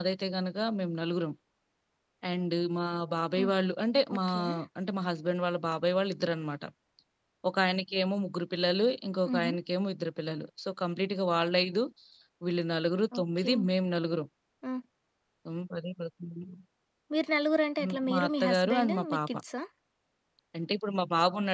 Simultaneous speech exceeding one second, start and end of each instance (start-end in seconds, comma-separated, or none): 17.8-19.3